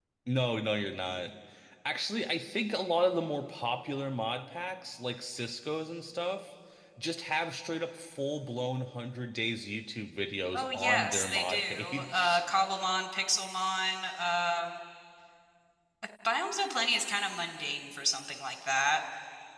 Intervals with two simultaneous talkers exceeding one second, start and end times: 10.6-12.4

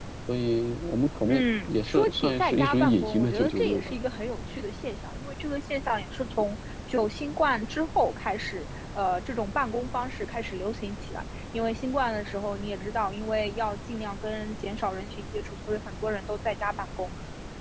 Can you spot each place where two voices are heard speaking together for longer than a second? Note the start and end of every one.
1.3-4.0

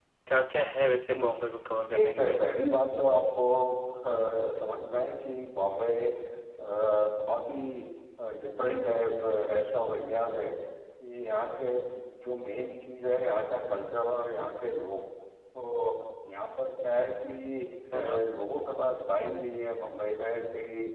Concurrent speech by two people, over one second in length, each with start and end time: none

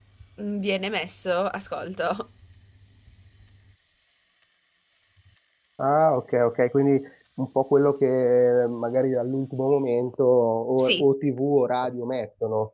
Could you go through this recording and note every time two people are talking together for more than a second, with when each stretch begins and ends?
none

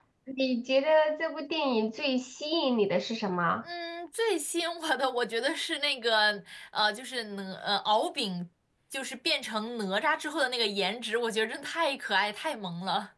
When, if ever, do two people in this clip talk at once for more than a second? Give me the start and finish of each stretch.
none

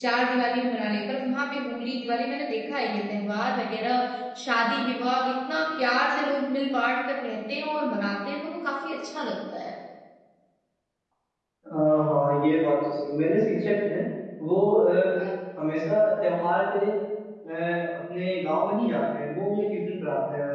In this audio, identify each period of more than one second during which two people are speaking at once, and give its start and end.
none

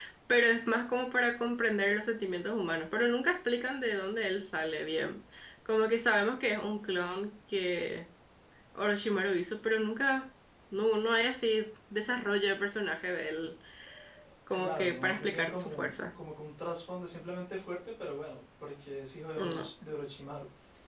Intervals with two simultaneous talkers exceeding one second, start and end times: 14.5-15.9

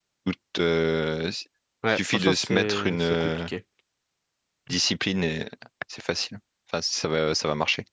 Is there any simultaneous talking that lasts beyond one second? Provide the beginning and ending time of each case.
1.9-3.4

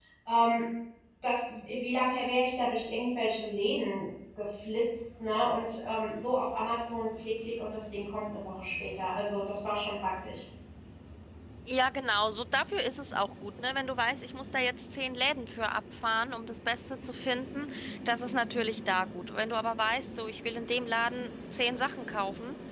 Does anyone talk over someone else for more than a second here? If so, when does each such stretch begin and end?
none

